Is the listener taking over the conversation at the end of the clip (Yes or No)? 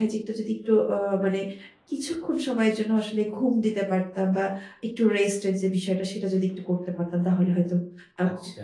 Yes